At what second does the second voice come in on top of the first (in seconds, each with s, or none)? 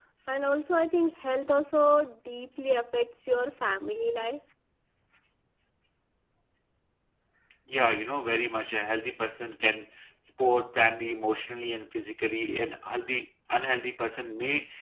none